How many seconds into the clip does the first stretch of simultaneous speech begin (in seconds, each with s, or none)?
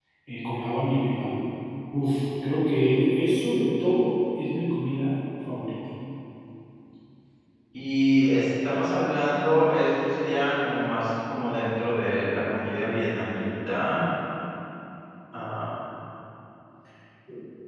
none